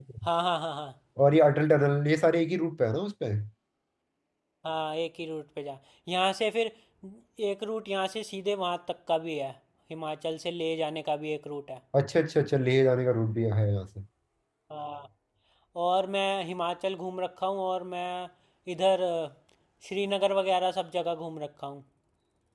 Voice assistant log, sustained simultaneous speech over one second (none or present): none